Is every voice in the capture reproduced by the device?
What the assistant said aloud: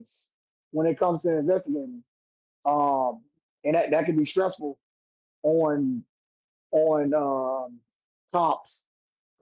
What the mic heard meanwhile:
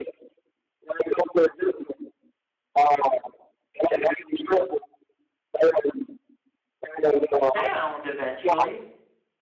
No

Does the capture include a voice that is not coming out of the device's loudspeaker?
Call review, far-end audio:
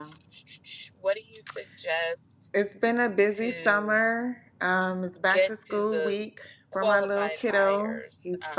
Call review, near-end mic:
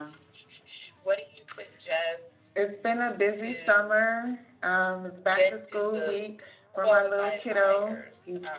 No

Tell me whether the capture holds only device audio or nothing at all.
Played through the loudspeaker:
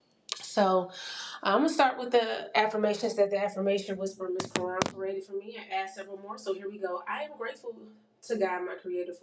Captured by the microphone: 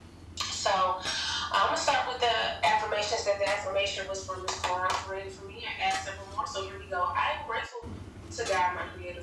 Yes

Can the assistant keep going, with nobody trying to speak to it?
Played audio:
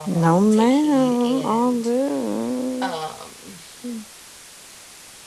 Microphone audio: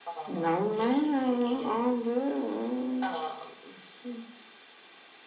Yes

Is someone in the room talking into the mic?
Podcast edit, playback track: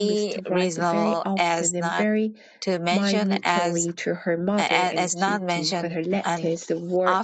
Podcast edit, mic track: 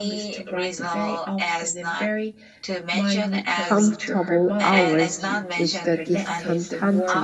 Yes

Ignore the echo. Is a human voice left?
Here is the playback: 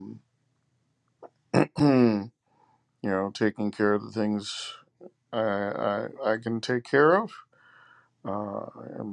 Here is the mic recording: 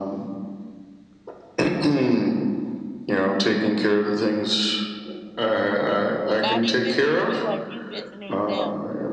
Yes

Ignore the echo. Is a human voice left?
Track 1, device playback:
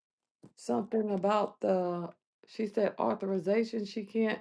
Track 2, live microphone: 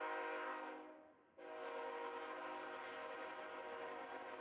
No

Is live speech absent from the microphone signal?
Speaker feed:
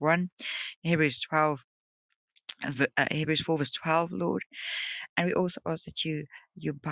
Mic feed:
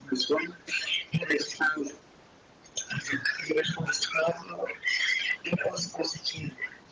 Yes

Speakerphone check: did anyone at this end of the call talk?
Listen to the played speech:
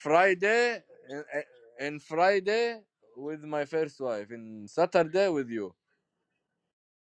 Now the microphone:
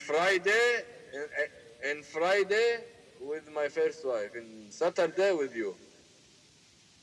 No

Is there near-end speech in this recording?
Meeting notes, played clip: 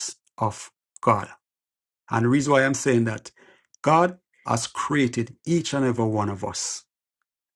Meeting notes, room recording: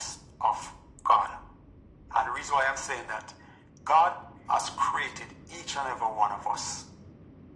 No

